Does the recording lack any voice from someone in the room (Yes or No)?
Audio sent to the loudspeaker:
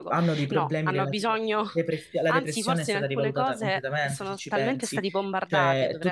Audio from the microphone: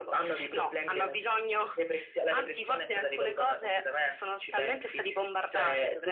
Yes